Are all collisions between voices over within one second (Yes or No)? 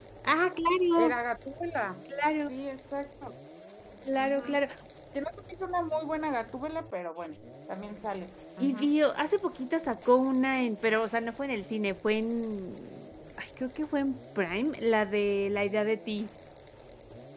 Yes